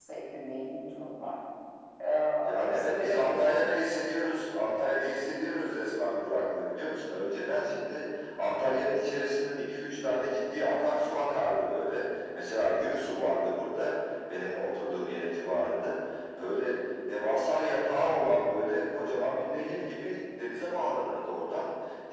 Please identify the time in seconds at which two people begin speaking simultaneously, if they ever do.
2.4 s

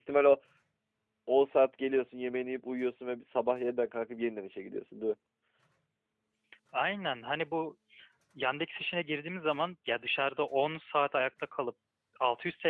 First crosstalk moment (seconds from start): none

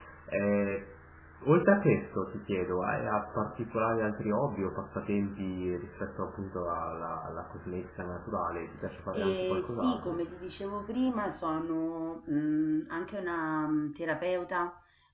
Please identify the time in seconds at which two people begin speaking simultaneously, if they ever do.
9.1 s

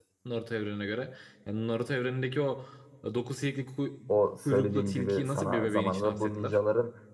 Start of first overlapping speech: 4.5 s

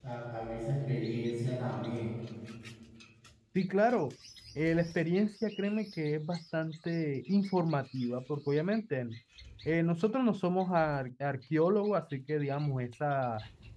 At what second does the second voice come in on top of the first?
none

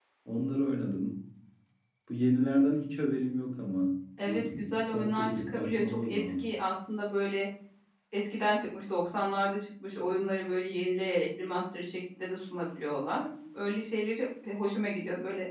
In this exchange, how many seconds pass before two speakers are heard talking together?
4.3 s

